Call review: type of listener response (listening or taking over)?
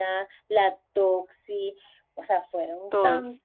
listening